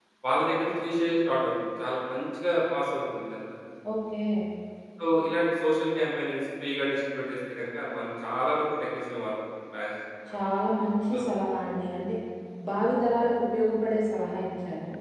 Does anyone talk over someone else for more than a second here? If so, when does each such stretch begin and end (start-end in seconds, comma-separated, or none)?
none